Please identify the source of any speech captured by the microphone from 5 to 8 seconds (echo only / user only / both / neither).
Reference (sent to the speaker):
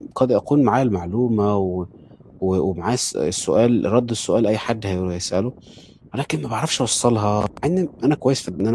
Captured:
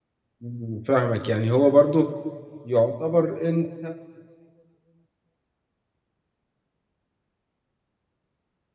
neither